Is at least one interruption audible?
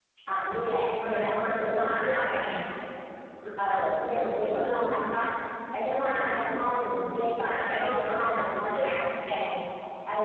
Yes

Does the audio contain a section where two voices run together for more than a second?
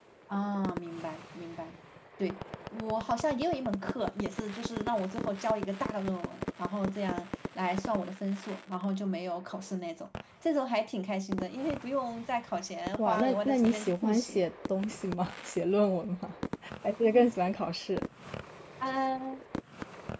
Yes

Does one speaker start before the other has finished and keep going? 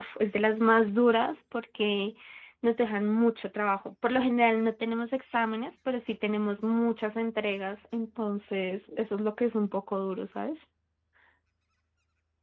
No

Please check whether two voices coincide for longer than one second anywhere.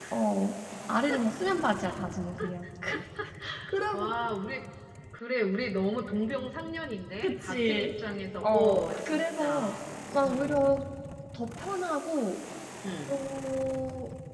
Yes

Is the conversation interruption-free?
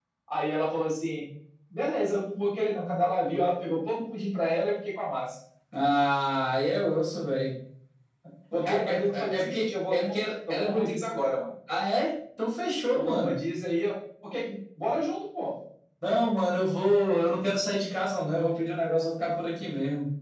No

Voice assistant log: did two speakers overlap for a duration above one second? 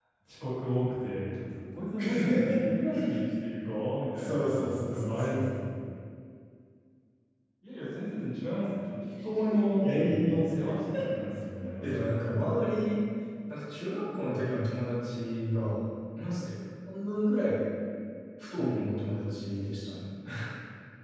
Yes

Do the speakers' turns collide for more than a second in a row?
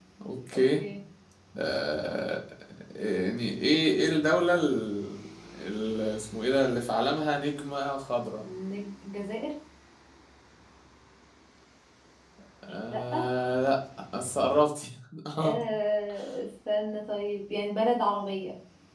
No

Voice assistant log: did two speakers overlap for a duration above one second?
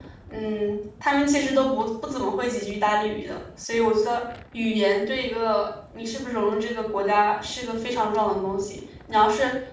No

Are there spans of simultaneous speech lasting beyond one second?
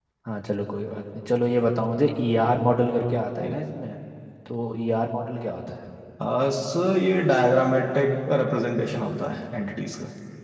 No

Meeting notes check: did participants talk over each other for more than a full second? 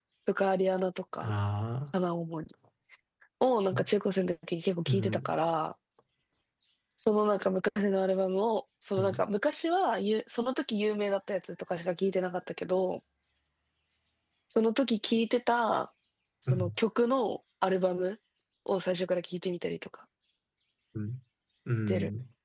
No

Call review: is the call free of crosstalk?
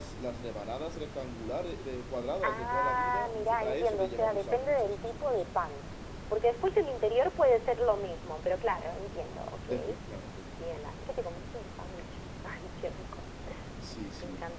No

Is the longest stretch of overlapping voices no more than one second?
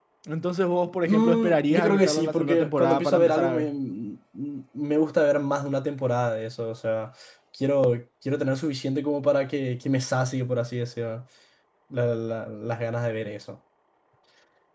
No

